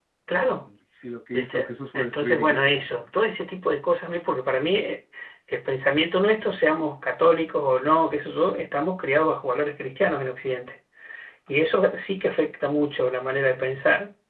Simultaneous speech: Yes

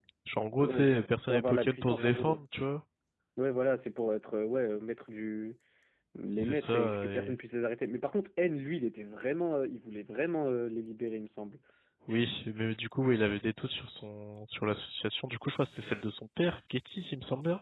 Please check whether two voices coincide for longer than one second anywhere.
Yes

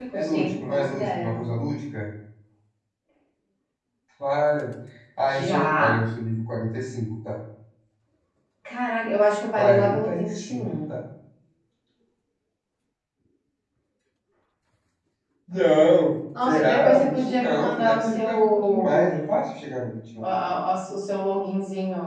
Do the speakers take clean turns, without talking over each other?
No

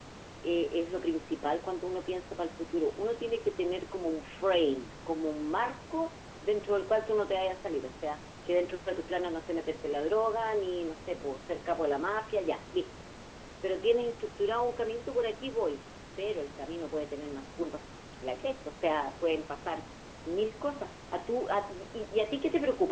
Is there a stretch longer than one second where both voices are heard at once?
No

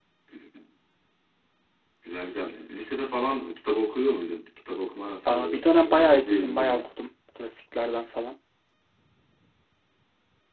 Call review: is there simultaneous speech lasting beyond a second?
Yes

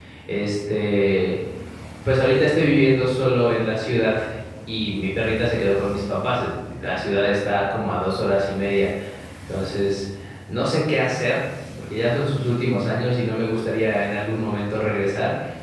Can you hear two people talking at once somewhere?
No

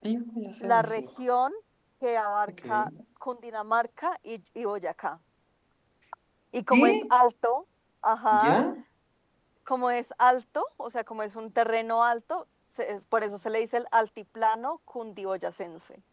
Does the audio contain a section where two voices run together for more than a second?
No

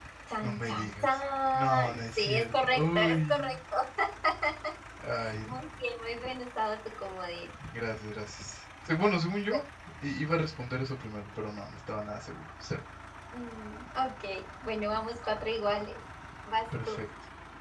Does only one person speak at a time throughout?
No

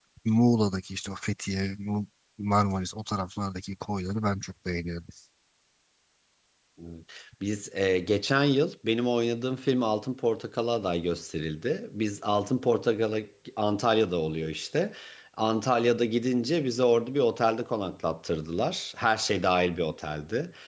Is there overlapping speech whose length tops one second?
No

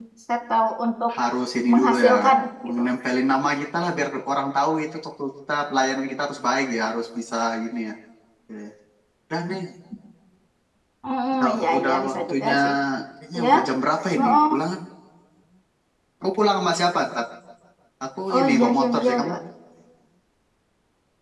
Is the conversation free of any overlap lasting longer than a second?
No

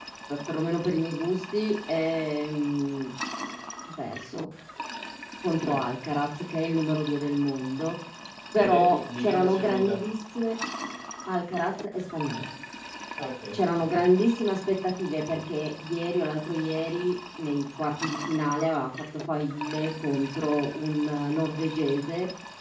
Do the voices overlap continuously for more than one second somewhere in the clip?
Yes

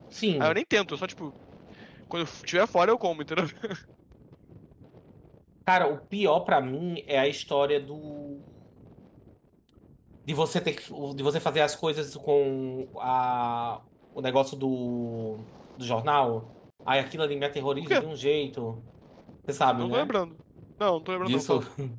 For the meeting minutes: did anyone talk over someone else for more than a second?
No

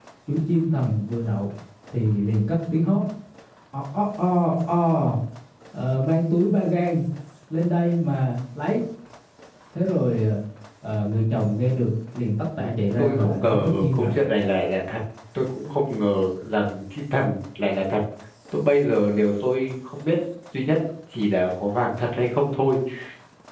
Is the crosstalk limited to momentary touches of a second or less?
No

